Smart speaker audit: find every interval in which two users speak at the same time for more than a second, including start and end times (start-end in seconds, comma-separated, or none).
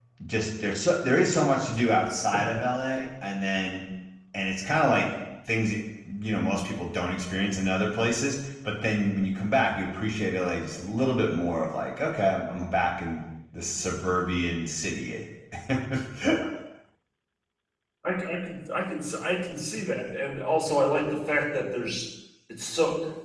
none